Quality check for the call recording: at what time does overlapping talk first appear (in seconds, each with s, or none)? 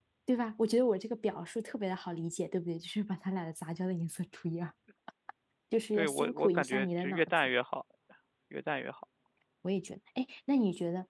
5.9 s